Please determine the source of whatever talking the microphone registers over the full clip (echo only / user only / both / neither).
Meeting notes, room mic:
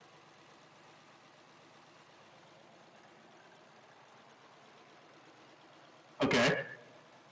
user only